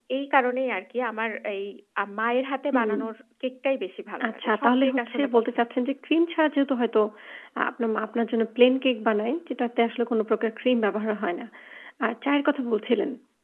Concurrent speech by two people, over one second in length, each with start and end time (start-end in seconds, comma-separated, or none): 4.3-5.7